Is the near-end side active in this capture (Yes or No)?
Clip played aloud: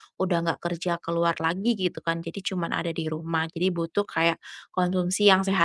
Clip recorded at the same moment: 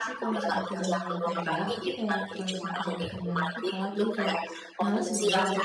Yes